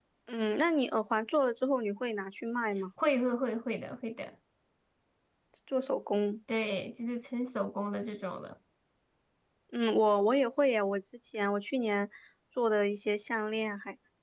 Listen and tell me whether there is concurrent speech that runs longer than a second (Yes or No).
No